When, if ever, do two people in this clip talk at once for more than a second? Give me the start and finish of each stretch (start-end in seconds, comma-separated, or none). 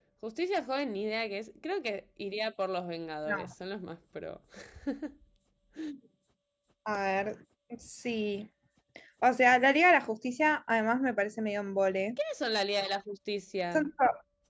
none